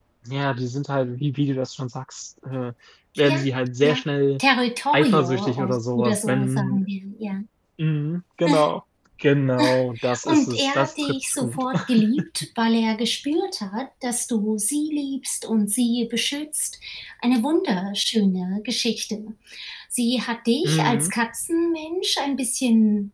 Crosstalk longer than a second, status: present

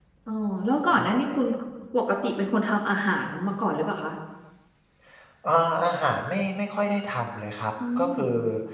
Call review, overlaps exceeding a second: none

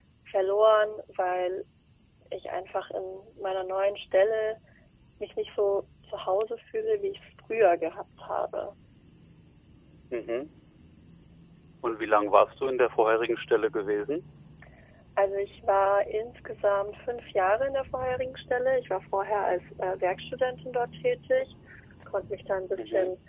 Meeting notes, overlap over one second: none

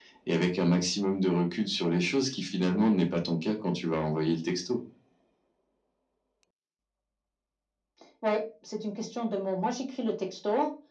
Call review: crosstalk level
none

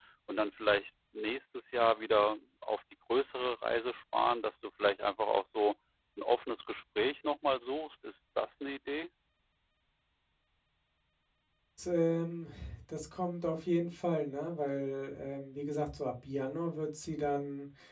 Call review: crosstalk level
none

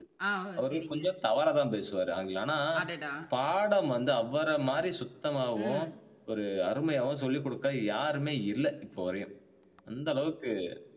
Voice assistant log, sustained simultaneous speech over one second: none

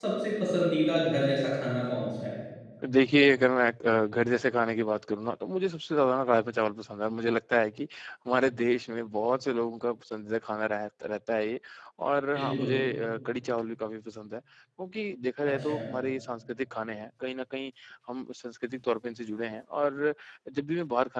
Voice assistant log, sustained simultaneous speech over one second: none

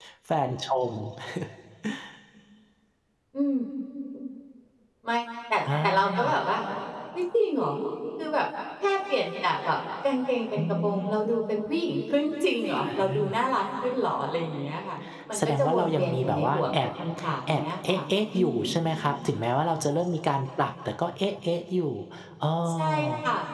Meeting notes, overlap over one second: present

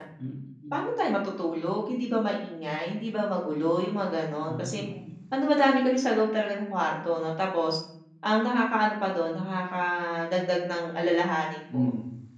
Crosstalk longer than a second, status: none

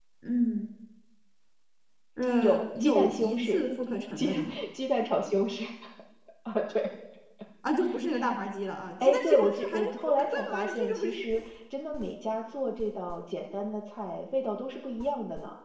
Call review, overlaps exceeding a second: present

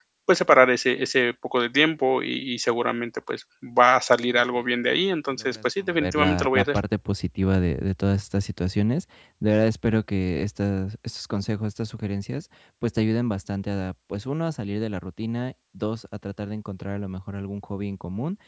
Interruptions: present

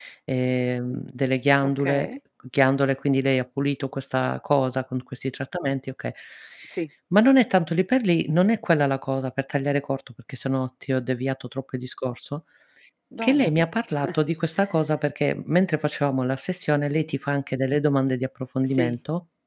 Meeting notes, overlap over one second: none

